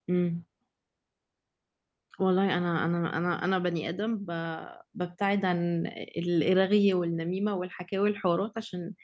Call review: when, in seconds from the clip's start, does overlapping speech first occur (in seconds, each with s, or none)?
none